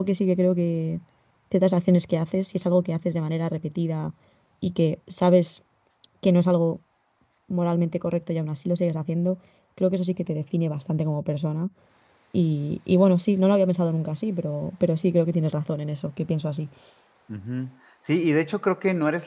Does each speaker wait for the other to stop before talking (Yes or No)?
Yes